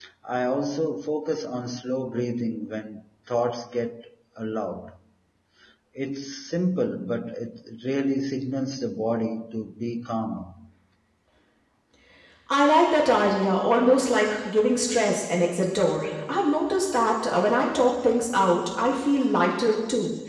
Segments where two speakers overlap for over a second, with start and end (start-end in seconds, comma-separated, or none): none